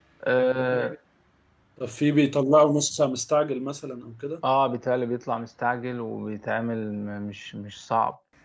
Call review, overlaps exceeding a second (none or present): none